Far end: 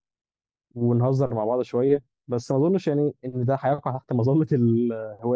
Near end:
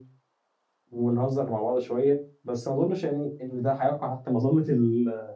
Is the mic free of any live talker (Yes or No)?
Yes